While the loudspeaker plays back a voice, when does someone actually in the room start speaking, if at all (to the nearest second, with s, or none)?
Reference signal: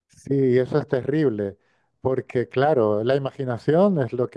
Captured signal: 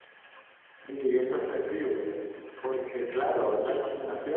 none